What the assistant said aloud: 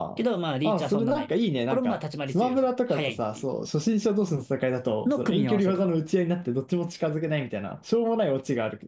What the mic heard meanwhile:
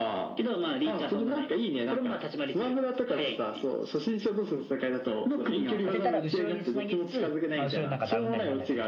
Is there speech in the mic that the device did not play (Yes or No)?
Yes